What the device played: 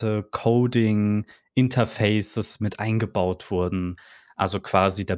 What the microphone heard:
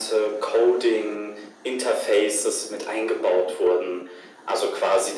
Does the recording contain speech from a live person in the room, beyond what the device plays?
No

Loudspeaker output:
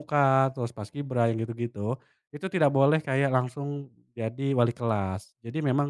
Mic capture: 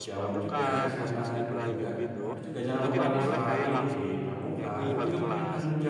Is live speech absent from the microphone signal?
No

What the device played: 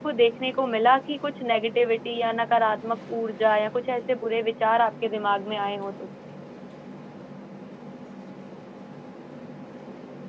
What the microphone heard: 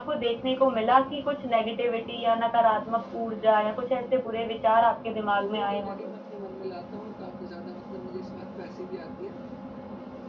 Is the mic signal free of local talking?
No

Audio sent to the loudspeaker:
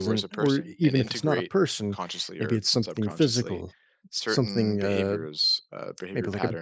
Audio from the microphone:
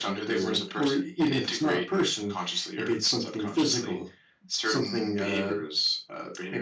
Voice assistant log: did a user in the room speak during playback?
No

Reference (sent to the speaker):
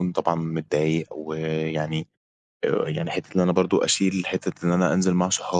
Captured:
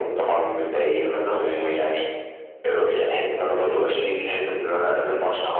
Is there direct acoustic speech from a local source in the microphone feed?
Yes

